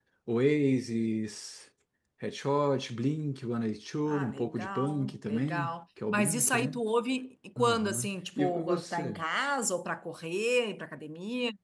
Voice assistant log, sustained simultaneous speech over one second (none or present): present